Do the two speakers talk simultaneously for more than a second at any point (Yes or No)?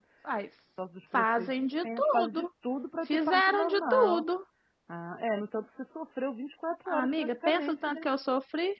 Yes